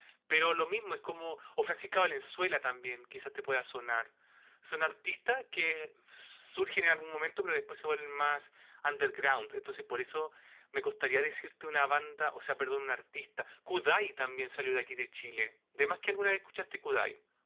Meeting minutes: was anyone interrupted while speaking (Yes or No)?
No